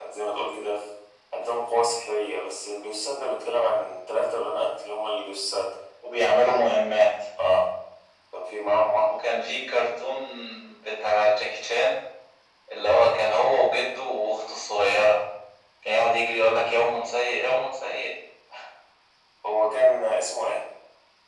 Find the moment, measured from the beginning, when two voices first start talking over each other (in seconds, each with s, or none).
none